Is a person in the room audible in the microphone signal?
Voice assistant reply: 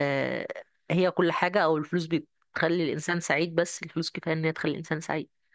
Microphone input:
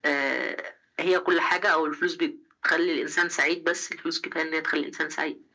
No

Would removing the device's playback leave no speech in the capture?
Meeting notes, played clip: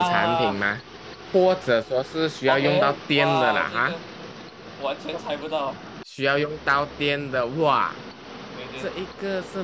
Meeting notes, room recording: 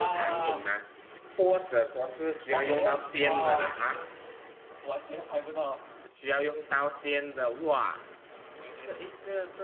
Yes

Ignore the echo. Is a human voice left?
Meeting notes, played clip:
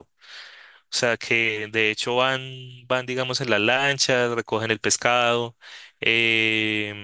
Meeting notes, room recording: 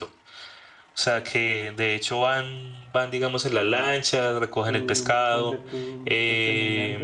Yes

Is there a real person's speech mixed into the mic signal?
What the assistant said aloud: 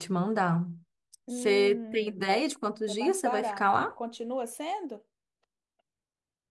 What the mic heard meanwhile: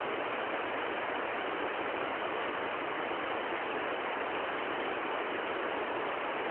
No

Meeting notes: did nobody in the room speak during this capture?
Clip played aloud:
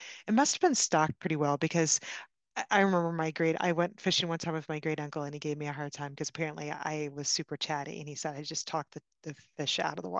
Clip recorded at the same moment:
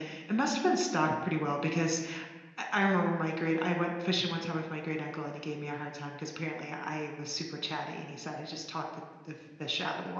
Yes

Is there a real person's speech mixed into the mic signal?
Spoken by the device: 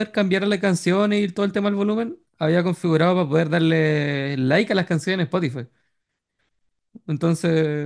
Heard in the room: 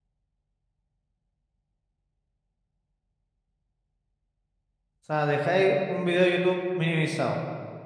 Yes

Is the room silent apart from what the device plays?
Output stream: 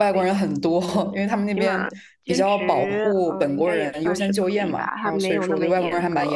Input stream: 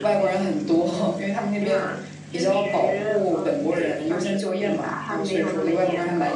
Yes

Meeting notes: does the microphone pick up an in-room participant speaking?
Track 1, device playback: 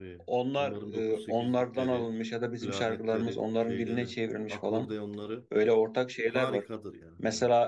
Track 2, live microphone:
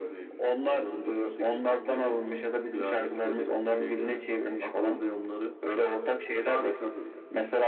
No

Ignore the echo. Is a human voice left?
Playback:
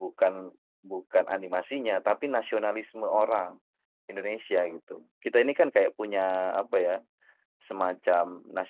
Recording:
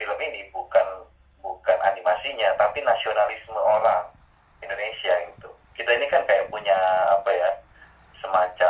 No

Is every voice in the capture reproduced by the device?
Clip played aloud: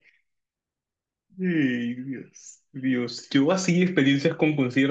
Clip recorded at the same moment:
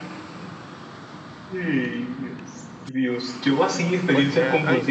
No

